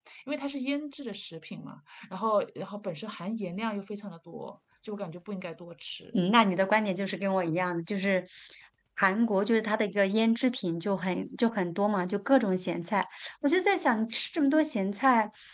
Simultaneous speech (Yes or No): No